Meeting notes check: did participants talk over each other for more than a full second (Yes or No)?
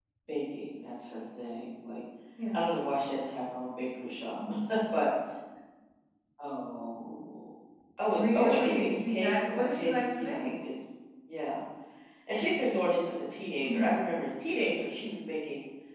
Yes